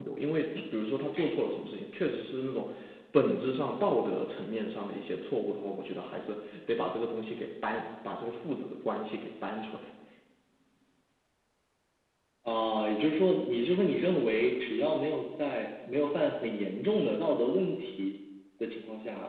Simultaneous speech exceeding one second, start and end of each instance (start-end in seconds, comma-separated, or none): none